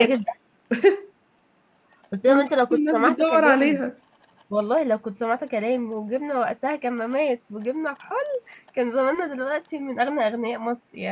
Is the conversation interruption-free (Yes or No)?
No